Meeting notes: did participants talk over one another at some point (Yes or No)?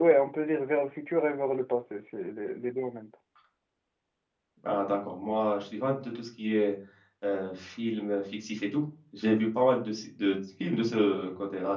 No